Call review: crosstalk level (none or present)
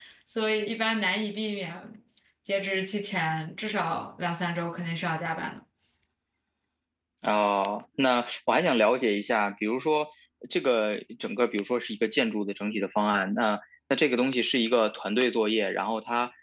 none